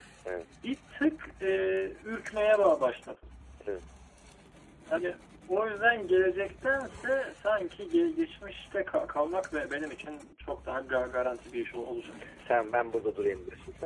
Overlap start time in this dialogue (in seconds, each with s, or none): none